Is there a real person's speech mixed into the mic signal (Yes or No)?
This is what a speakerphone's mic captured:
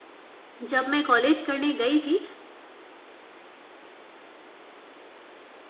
Yes